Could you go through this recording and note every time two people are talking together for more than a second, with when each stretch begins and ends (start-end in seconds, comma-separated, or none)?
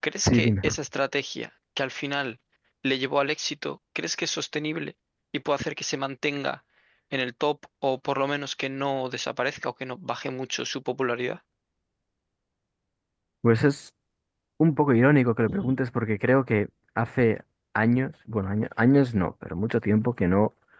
none